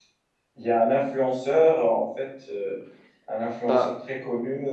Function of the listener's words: listening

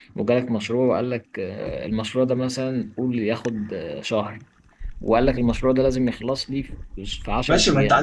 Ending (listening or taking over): taking over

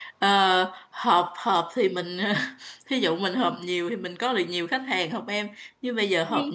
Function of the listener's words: listening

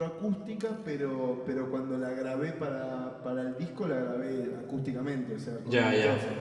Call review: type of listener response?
taking over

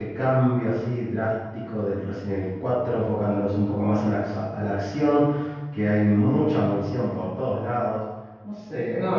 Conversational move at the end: taking over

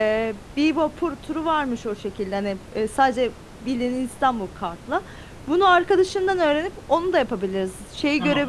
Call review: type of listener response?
listening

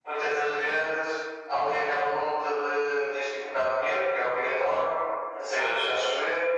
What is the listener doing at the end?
listening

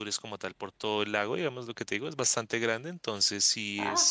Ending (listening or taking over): listening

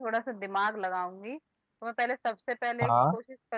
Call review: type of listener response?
listening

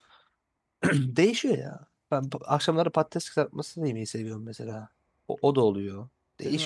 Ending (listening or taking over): taking over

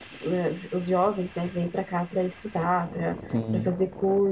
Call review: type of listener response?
listening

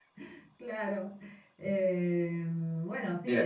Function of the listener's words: taking over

